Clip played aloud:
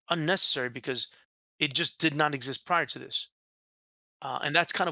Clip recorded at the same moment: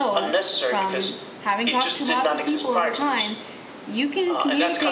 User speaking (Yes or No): Yes